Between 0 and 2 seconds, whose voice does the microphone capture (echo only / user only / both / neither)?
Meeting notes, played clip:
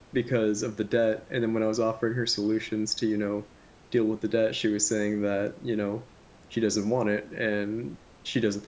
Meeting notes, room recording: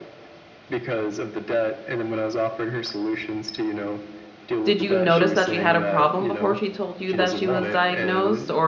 echo only